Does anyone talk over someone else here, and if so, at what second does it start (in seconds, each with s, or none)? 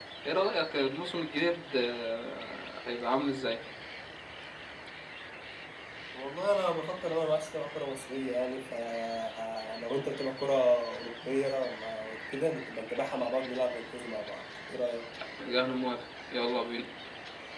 none